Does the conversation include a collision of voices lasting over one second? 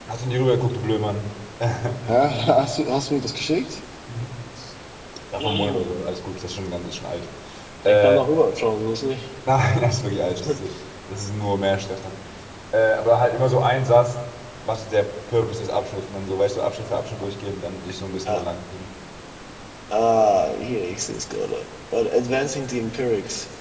No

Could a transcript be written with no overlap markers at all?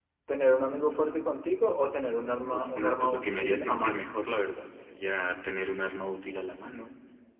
No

